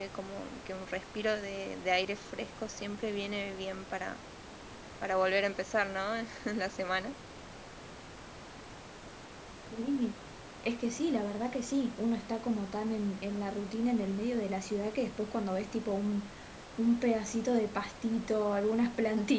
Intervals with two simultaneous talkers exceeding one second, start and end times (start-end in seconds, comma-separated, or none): none